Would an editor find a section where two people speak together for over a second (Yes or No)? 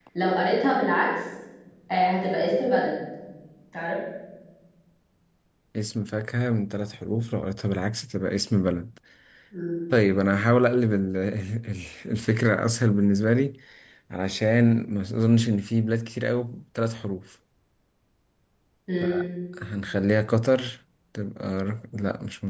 No